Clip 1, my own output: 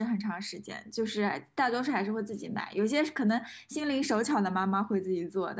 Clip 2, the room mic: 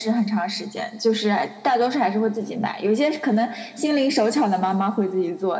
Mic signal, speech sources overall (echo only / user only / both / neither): echo only